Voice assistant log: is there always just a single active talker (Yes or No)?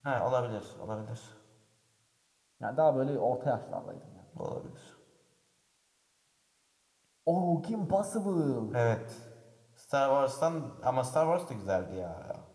Yes